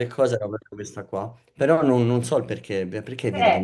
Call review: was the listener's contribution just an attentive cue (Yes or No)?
No